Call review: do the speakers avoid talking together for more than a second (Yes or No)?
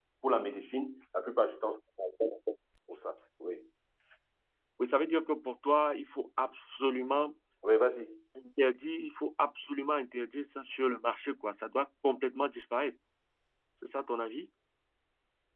Yes